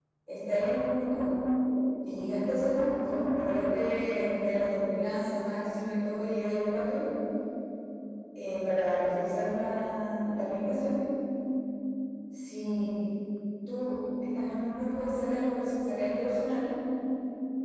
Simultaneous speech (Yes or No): No